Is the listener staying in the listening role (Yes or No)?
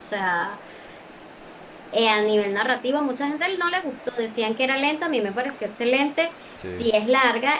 Yes